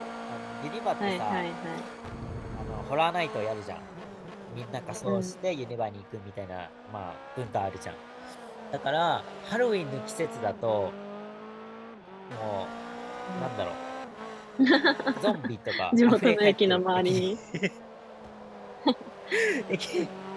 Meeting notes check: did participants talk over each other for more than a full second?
Yes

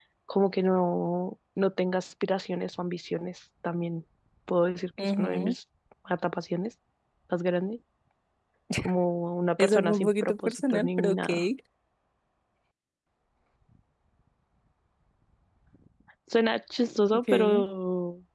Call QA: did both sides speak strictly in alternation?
No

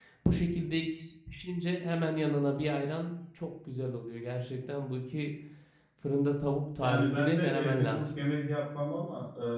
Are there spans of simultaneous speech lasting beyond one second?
Yes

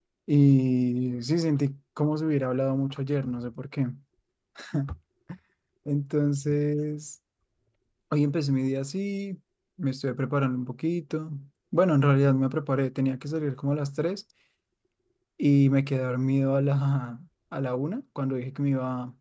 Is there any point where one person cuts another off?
No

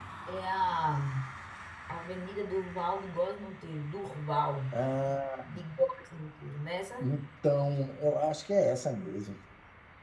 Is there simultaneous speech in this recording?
No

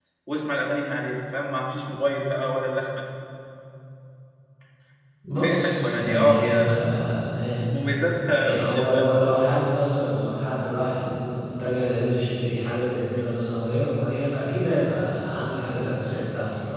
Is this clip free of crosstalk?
No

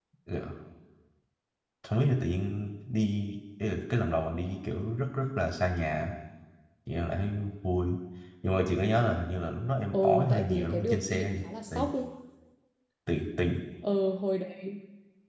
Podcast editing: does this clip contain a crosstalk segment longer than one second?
Yes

